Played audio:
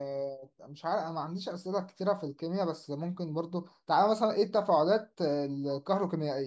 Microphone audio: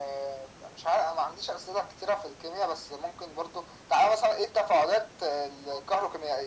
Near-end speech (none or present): none